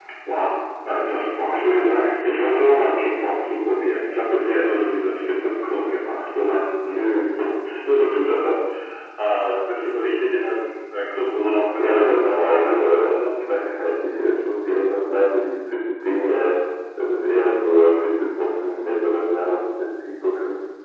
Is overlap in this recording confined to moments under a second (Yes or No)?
No